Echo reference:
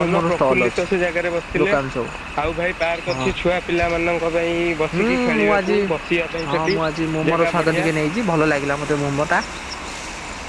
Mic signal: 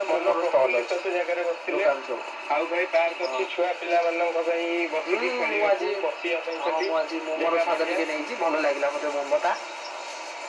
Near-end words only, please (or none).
none